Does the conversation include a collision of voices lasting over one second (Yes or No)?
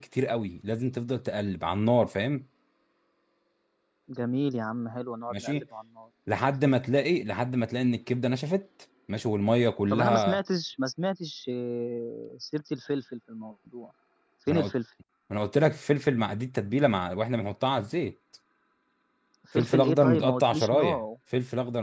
Yes